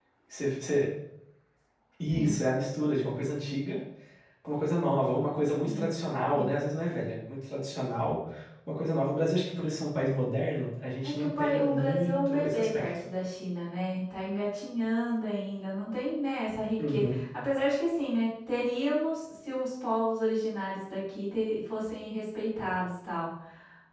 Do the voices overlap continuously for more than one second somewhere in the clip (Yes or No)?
Yes